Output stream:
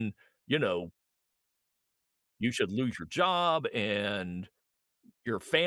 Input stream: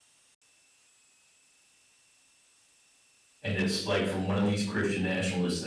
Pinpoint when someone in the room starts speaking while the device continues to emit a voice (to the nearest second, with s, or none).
3 s